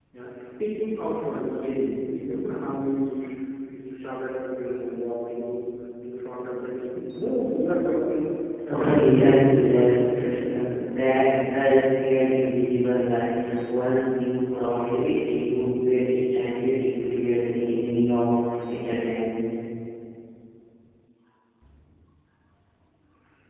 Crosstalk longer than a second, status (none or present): present